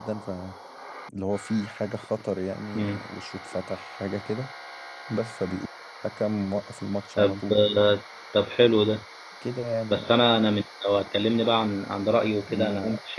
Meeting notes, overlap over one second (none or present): none